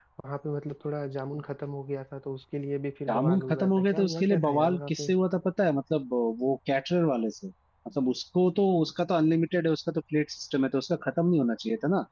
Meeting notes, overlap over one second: present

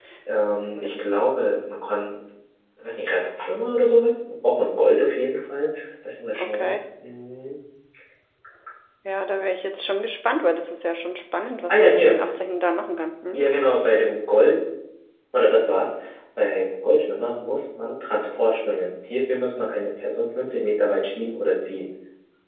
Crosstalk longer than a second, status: none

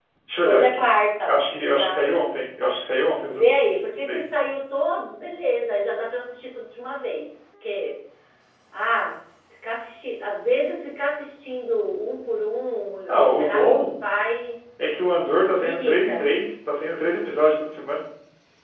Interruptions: present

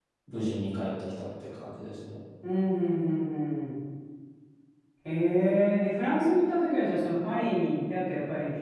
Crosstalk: none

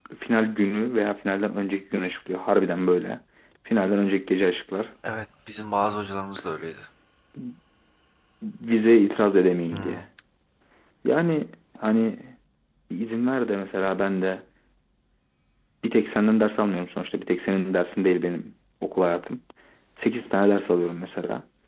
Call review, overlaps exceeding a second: none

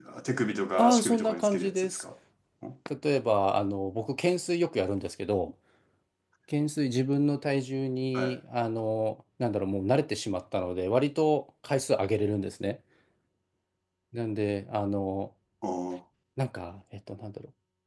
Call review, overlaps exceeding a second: present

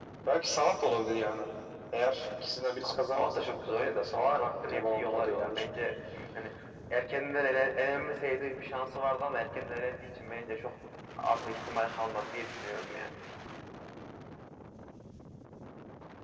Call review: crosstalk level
present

